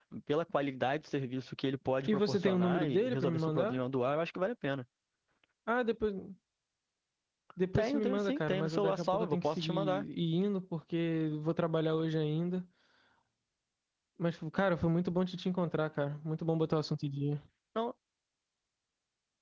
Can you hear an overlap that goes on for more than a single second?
Yes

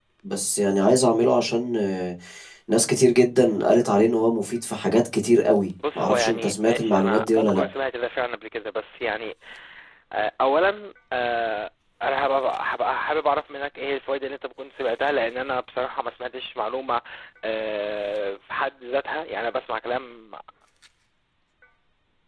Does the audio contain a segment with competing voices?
Yes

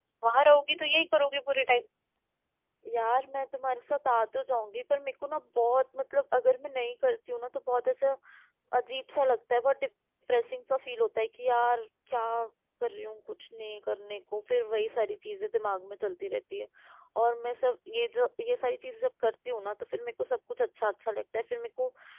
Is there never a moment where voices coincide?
Yes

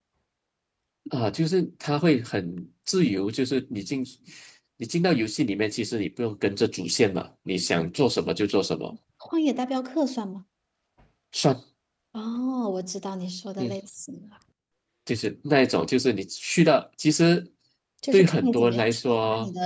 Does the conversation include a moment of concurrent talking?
Yes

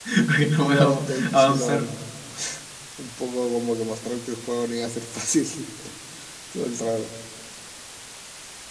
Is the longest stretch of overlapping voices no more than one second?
No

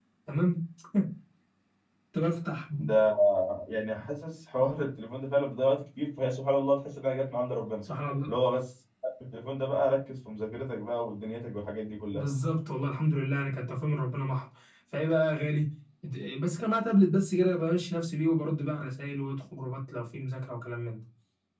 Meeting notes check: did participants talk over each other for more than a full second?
No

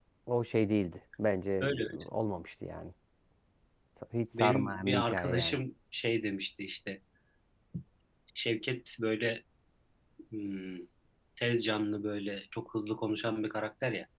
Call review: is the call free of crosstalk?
No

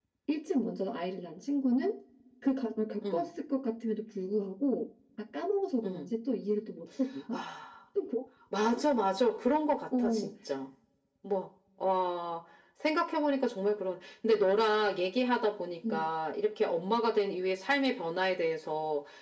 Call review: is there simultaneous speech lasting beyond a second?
No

